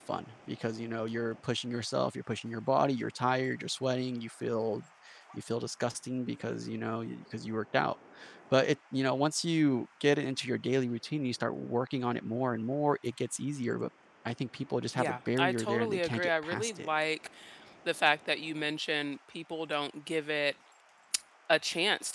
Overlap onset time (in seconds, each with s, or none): 14.9 s